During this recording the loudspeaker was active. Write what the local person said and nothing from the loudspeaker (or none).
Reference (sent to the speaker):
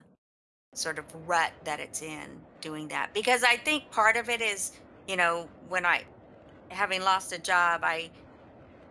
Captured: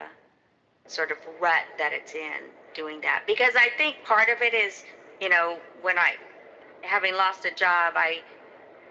none